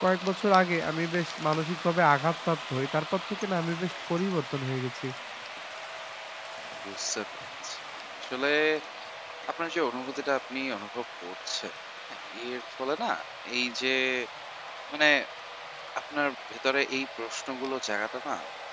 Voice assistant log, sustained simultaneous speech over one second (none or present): none